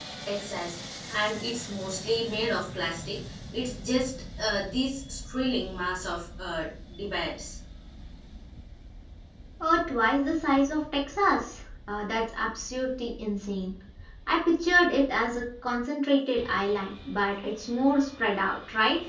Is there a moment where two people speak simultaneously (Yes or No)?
No